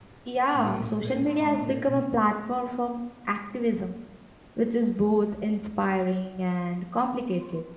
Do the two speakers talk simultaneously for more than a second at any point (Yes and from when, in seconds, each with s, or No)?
Yes, from 0.6 s